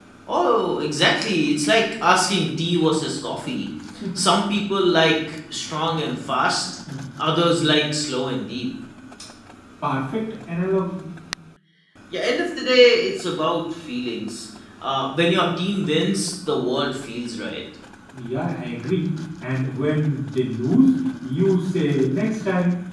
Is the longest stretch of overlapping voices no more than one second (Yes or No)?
Yes